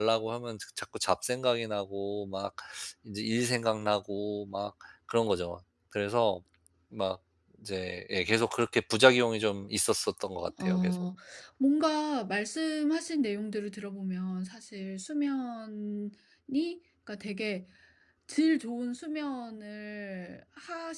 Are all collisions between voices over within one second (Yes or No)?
Yes